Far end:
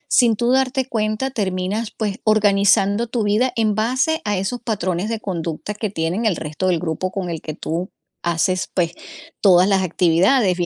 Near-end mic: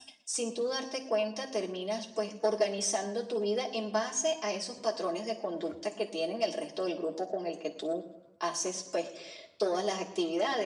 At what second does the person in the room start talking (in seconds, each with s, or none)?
none